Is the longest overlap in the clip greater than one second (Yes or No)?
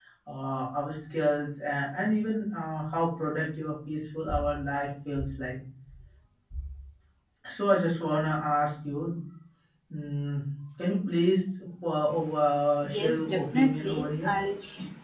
Yes